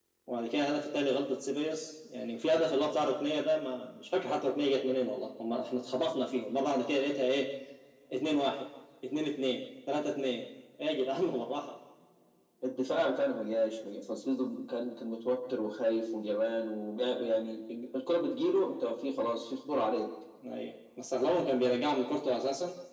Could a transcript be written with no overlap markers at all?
Yes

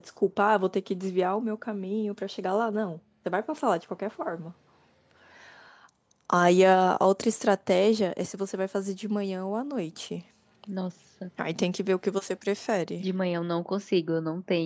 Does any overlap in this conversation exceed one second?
No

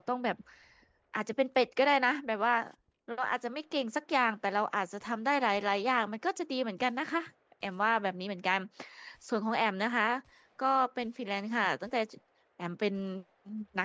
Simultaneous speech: No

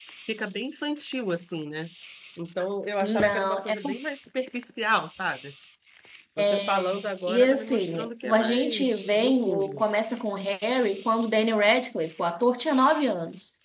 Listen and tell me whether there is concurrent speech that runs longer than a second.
Yes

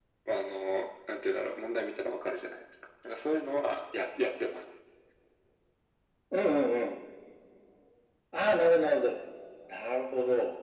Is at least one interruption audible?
No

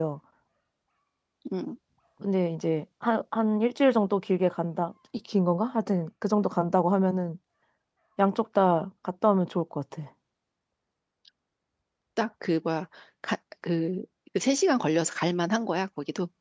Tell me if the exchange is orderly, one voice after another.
Yes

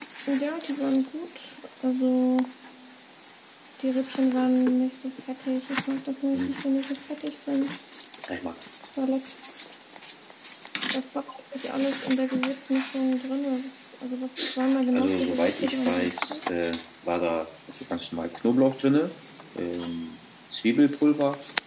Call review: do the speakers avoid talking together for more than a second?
No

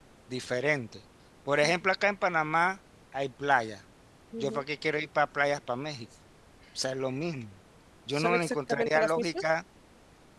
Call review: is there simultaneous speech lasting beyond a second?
Yes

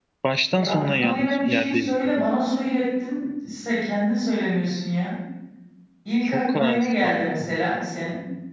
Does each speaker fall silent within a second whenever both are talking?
No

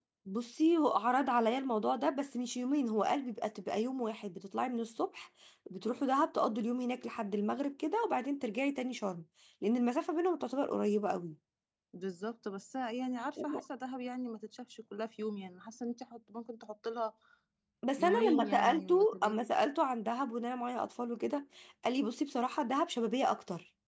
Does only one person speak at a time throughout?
No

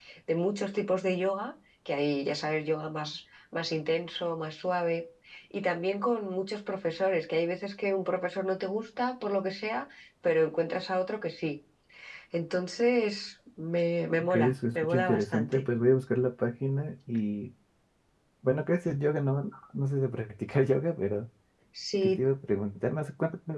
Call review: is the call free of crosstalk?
No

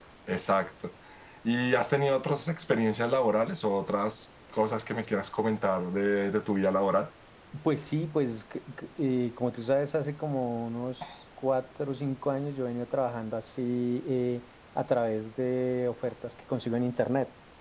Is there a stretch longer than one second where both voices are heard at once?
No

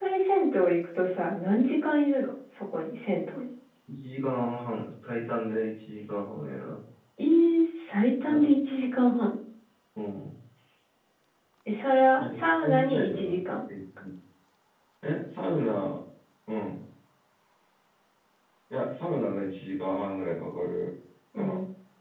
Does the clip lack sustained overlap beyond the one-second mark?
No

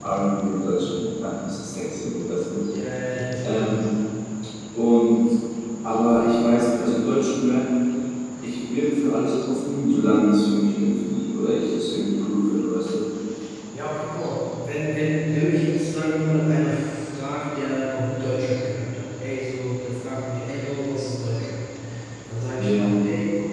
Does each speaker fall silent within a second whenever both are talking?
Yes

